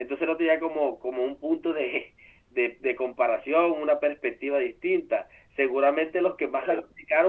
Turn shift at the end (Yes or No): No